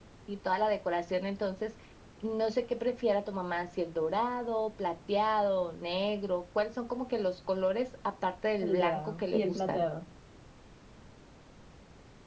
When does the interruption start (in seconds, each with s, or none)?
8.6 s